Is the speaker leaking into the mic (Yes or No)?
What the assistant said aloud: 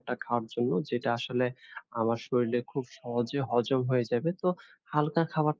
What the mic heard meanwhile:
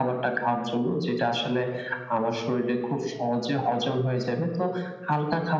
Yes